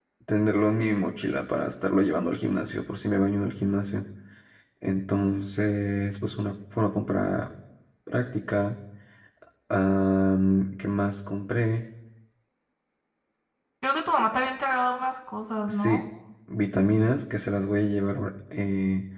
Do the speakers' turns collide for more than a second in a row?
No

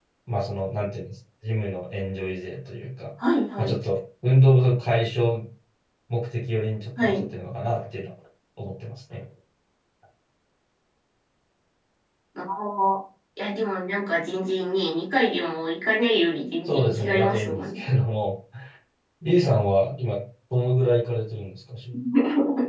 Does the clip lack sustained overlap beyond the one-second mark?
No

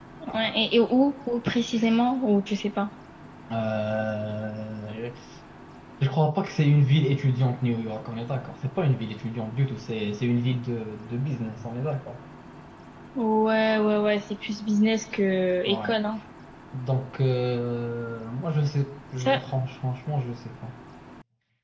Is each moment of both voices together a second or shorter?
Yes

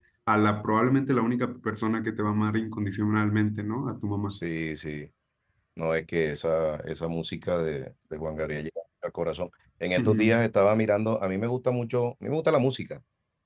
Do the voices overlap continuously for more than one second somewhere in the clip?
No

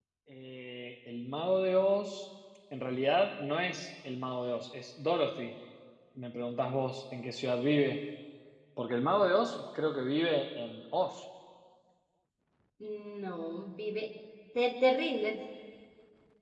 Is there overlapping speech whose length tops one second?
No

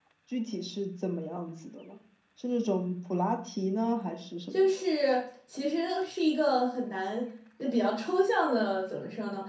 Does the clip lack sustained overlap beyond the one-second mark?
Yes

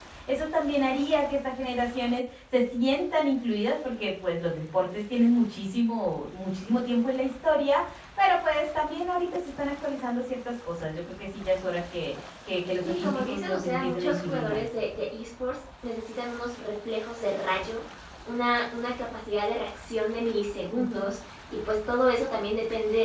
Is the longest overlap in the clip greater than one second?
Yes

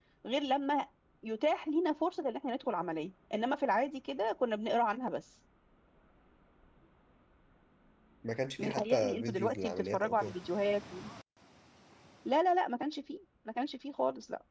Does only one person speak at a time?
No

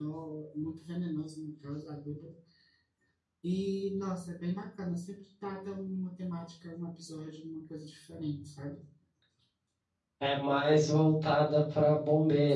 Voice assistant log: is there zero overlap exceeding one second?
Yes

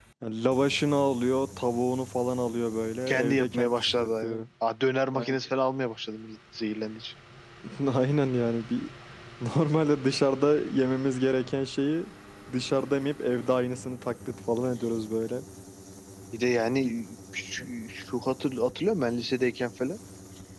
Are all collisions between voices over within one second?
No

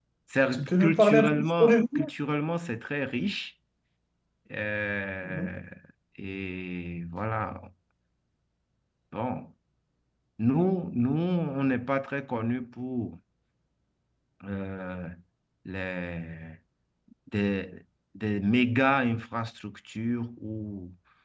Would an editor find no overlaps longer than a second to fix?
No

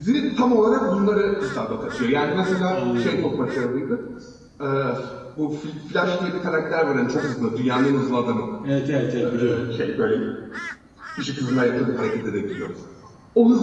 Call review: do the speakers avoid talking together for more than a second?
Yes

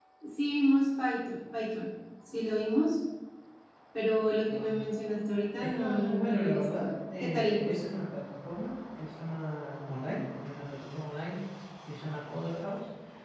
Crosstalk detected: Yes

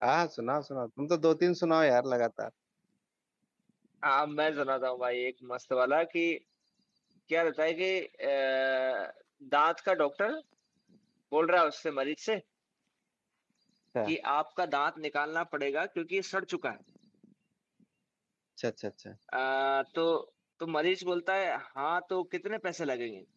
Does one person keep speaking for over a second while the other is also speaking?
No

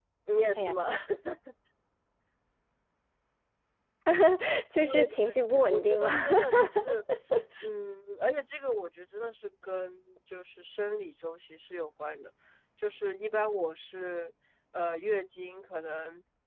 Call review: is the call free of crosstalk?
No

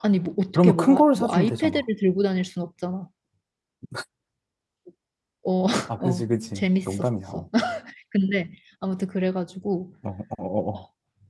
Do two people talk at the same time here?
Yes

